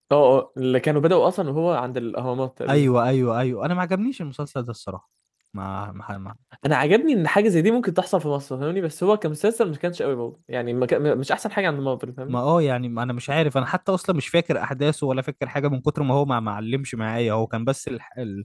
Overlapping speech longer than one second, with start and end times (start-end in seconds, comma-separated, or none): none